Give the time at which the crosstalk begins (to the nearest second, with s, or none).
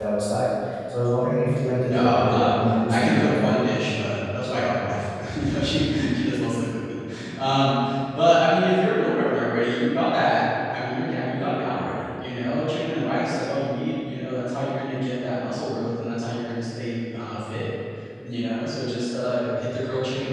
2 s